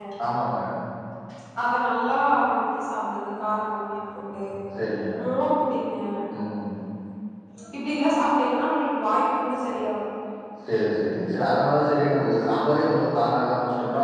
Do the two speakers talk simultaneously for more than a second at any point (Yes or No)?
No